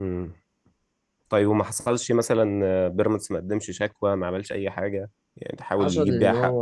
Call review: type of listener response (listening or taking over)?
taking over